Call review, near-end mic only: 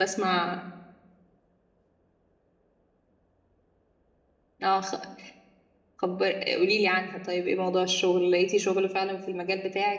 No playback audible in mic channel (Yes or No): Yes